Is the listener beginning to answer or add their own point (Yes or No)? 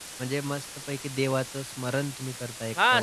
Yes